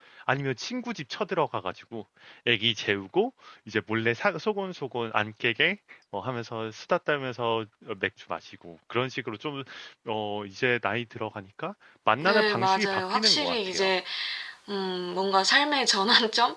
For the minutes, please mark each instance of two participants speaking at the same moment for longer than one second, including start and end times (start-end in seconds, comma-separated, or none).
12.2-13.9